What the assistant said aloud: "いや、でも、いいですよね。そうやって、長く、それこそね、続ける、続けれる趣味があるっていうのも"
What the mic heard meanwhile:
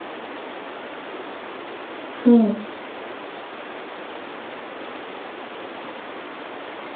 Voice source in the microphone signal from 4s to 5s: neither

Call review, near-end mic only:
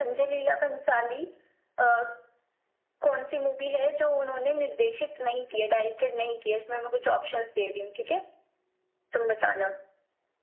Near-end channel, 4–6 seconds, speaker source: echo only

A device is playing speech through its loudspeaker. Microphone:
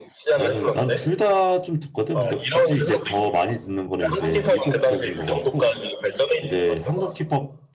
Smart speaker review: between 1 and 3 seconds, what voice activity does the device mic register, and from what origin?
both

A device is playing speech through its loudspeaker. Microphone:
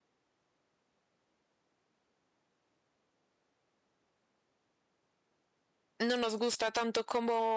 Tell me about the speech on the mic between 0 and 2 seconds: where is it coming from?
neither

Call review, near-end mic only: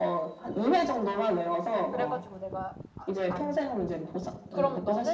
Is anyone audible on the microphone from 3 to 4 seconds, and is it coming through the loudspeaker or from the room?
both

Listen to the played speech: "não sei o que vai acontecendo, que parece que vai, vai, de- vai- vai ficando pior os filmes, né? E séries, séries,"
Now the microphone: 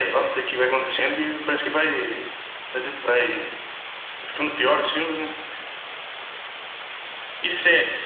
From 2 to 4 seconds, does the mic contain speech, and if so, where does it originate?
echo only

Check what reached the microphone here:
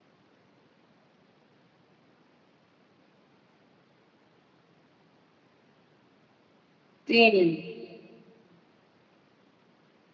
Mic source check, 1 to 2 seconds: neither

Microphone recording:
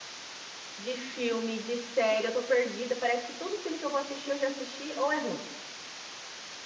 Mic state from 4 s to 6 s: user only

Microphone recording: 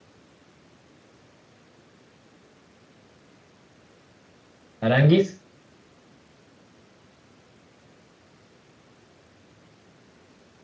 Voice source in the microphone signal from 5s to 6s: user only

